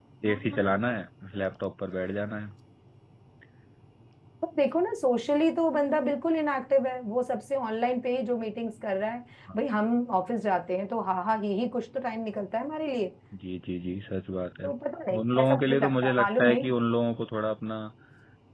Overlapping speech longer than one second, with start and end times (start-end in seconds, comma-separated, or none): 15.3-16.6